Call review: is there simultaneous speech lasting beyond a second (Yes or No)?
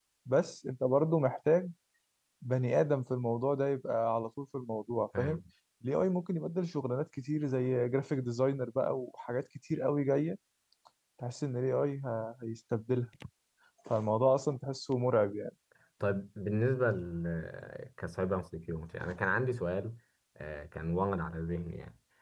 No